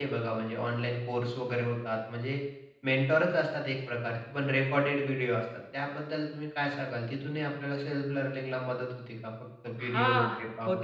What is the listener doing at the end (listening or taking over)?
taking over